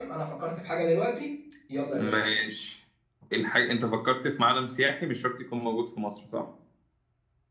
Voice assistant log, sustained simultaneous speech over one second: none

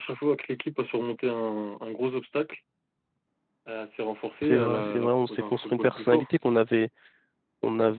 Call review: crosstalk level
present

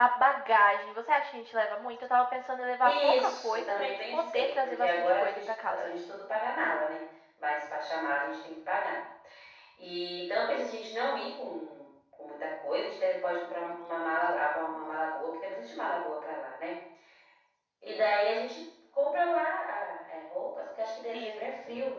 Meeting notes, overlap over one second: present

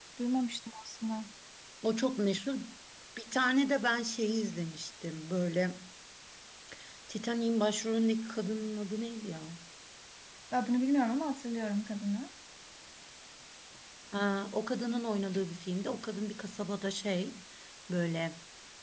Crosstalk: none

